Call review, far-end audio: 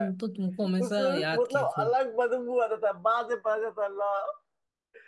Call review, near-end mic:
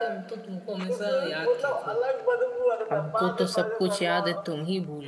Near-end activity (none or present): present